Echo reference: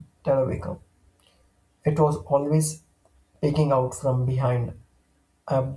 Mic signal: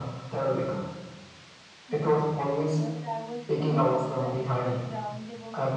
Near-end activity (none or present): present